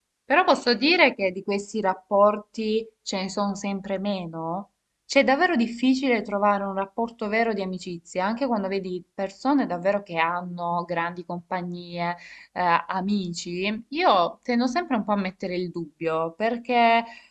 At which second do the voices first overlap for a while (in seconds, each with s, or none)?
none